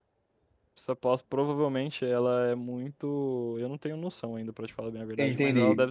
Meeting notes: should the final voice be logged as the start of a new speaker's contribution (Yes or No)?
No